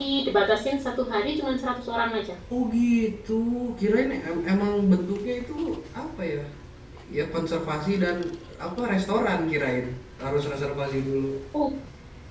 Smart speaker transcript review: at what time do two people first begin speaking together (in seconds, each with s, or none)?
none